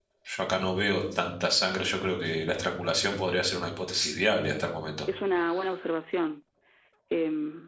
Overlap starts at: none

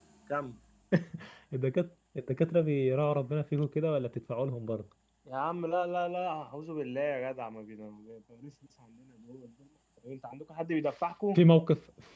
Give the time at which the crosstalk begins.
none

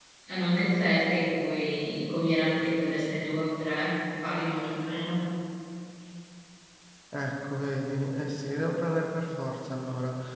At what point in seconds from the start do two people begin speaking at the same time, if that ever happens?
none

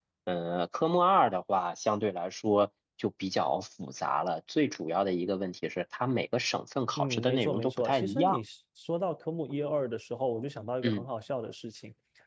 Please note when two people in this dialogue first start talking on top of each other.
7.0 s

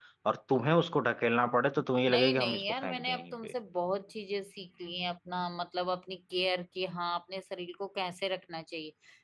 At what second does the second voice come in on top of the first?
2.0 s

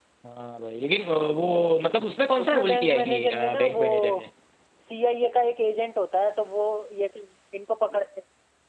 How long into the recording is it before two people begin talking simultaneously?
2.4 s

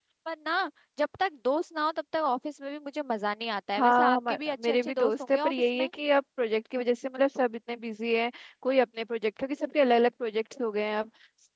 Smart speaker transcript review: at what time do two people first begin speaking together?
3.8 s

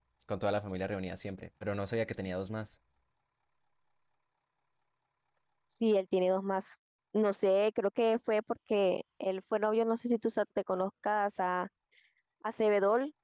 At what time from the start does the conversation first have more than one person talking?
none

